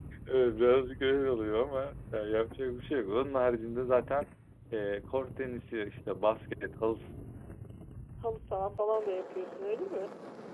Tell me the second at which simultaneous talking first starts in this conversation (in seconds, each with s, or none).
none